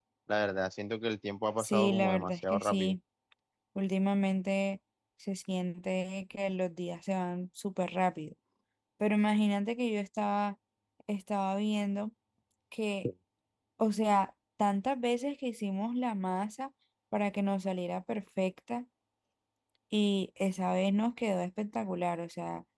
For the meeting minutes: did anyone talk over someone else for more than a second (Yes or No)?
Yes